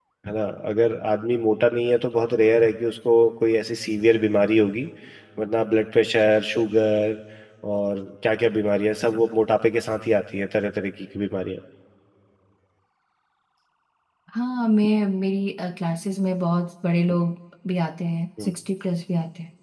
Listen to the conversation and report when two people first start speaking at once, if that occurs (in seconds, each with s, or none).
none